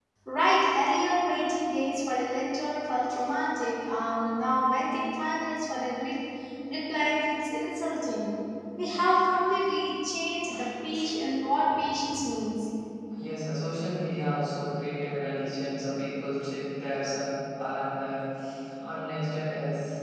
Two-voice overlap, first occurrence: none

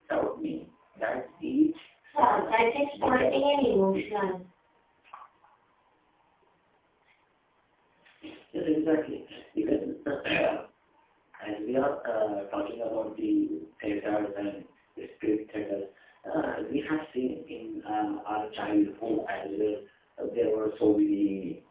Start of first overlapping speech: 2.1 s

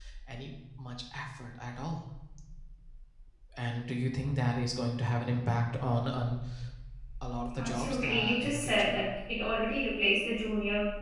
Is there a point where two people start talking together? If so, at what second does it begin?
7.6 s

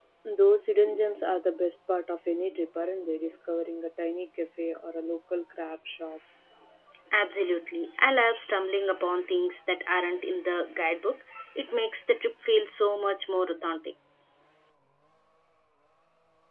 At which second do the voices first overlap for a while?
none

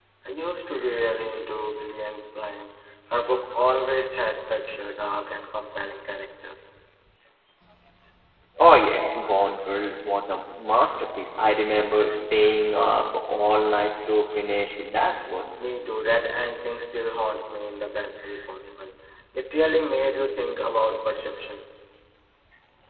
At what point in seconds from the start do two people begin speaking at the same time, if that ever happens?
none

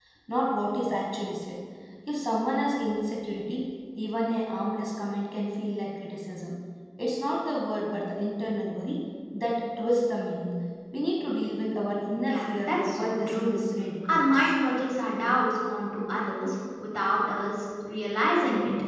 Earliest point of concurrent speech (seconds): 12.3 s

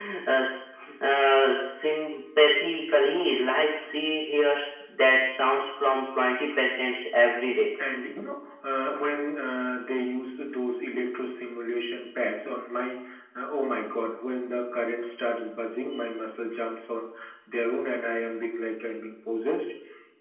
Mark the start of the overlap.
none

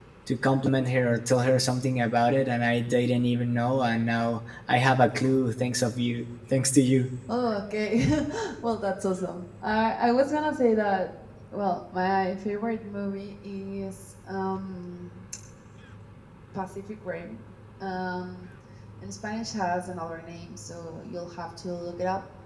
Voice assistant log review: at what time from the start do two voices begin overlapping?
none

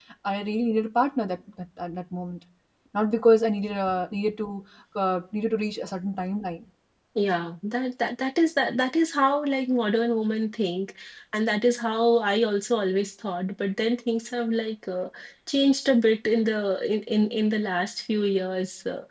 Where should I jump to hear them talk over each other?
none

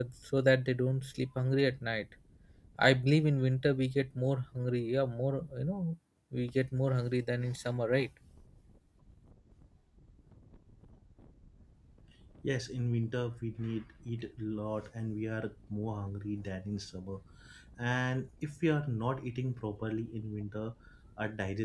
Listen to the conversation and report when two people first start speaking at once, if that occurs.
none

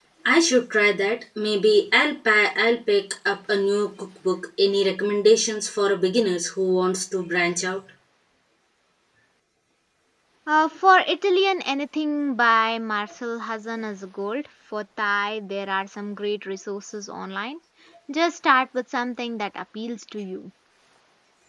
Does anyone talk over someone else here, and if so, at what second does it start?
none

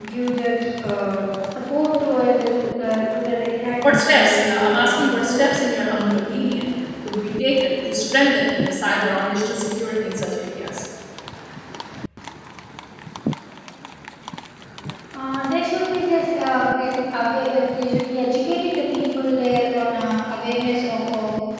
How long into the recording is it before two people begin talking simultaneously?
3.8 s

